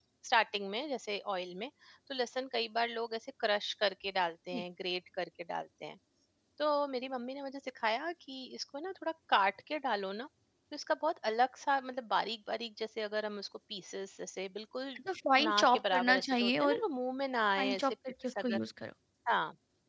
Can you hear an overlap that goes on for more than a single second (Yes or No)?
Yes